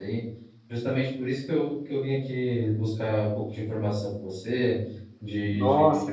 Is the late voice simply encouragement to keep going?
Yes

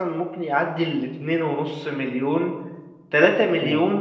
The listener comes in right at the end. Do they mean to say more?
No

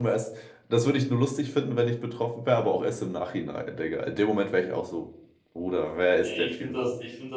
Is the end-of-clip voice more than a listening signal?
Yes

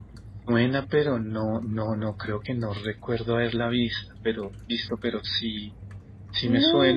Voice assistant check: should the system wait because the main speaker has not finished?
No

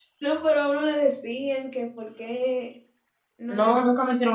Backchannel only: No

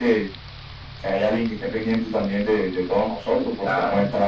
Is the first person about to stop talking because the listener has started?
No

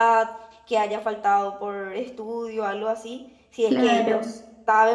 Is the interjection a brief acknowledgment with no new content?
Yes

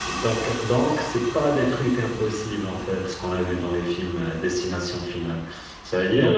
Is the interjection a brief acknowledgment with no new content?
Yes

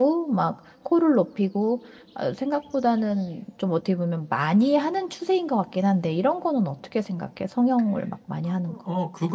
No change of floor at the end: No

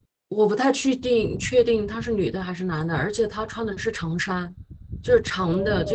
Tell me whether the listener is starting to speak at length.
Yes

